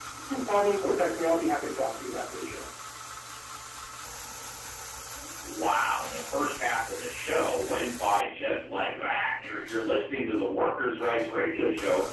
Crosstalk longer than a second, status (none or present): none